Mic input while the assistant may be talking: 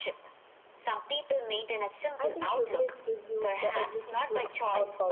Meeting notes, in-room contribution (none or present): present